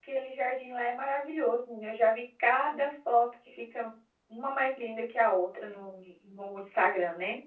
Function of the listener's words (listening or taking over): taking over